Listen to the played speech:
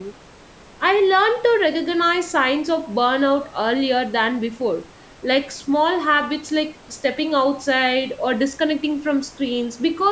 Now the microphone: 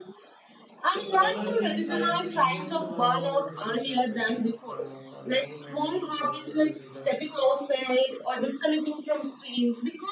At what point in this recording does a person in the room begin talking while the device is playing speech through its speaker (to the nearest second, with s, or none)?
1 s